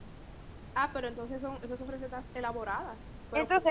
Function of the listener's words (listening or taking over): taking over